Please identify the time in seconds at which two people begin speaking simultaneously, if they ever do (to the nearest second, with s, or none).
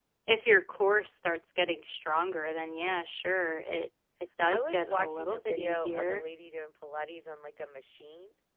5 s